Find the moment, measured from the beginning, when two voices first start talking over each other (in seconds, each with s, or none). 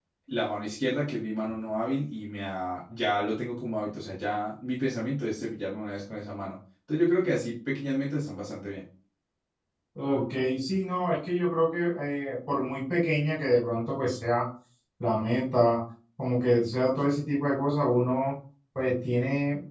none